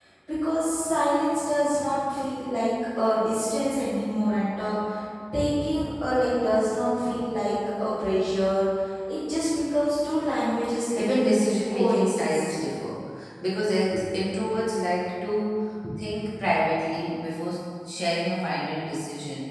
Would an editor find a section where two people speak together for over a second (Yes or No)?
Yes